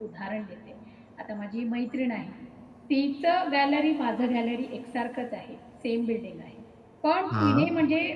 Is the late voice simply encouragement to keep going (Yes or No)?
Yes